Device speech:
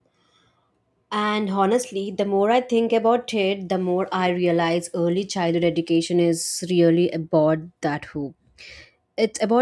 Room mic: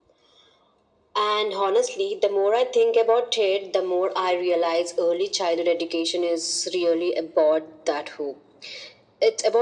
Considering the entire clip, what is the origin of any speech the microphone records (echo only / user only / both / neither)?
echo only